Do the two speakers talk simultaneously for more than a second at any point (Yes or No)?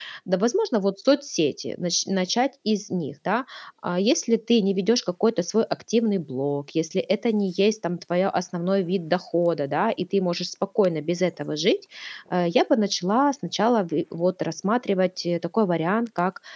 No